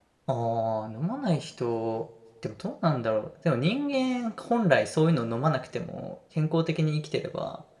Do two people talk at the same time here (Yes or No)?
No